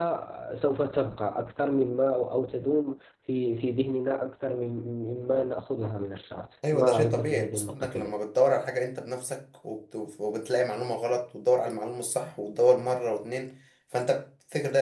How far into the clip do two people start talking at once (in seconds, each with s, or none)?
6.6 s